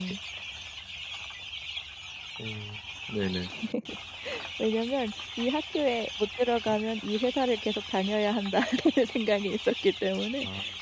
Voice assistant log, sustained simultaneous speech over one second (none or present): none